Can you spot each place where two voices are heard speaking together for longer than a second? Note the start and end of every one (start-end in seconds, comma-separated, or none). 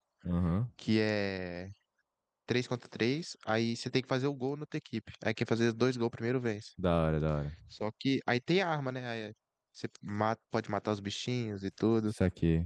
none